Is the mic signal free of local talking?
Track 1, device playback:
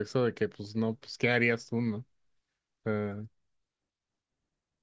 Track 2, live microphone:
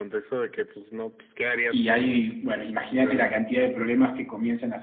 No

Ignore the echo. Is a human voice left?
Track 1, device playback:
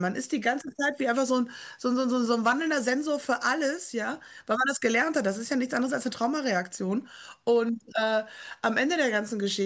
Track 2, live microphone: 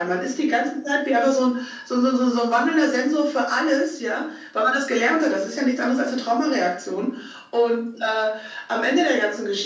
No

